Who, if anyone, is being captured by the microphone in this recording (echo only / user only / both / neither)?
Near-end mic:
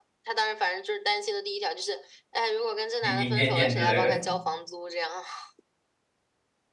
both